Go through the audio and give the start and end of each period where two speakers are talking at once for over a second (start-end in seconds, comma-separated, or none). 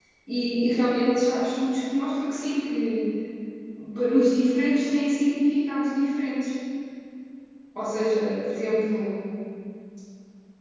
none